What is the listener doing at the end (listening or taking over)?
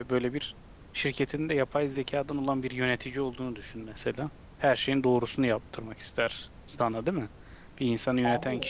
listening